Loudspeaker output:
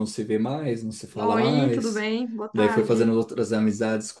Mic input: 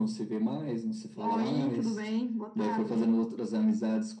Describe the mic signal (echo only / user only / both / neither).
echo only